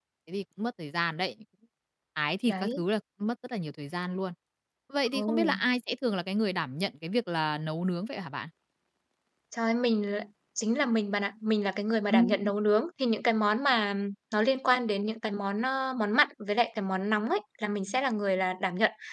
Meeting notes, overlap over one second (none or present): none